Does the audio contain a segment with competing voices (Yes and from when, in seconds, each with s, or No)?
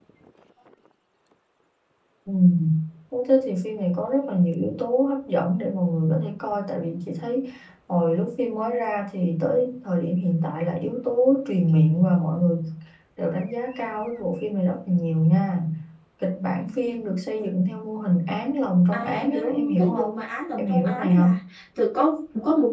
Yes, from 18.9 s